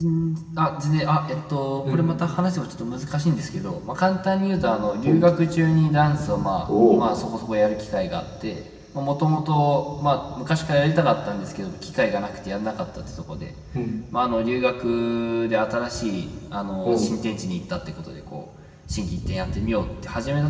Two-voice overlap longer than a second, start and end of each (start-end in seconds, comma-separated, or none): none